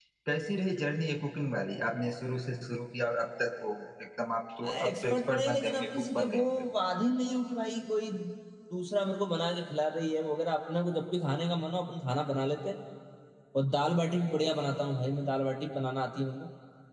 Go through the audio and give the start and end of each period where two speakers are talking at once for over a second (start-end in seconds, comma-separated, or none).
4.9-6.4